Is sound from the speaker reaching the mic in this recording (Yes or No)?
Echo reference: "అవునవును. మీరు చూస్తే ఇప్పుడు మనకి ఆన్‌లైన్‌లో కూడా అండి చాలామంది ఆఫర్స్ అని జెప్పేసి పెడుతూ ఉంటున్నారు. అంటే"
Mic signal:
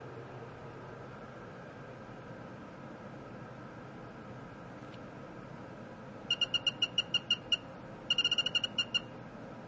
No